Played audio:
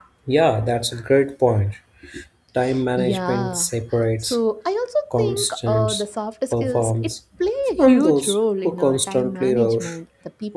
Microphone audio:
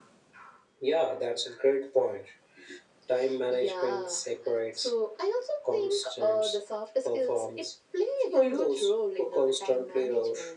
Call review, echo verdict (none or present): present